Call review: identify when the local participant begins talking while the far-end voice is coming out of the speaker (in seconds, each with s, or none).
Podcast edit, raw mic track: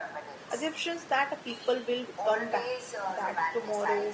0.5 s